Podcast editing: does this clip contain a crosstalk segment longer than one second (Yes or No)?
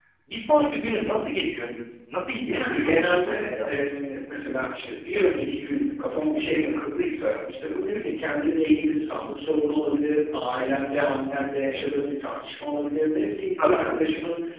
Yes